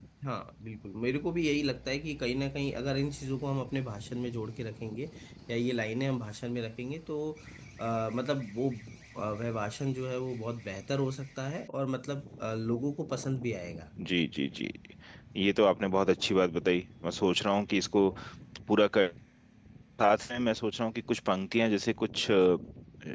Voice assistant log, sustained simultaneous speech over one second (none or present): none